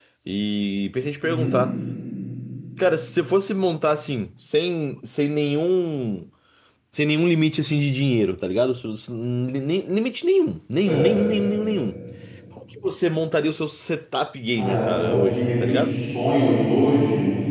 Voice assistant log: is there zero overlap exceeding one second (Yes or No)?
No